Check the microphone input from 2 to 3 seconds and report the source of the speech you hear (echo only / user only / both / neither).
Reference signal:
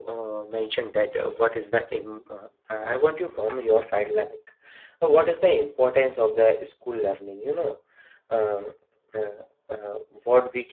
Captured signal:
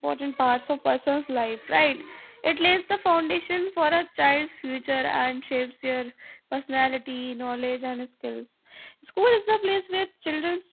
user only